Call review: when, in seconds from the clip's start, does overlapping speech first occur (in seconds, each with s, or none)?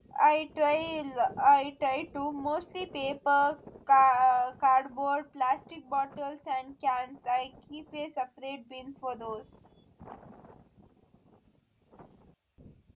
none